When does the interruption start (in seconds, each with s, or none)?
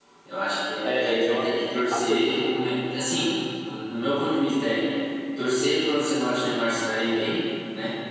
0.8 s